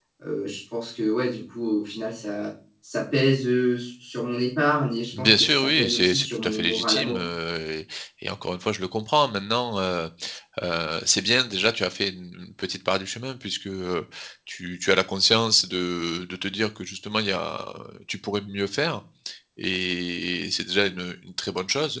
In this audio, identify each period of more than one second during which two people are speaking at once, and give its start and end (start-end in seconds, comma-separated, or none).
5.2-7.2